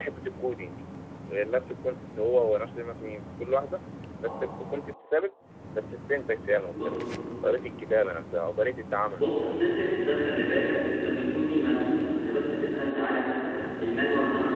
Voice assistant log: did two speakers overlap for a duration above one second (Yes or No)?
No